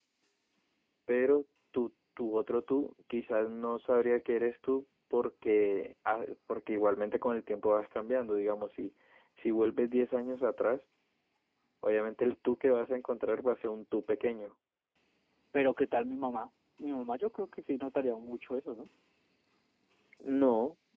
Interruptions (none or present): none